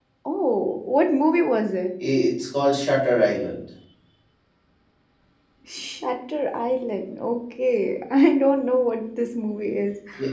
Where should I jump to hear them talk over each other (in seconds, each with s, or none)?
none